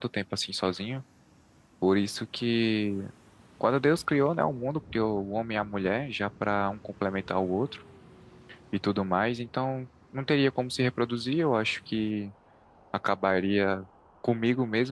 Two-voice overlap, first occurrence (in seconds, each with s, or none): none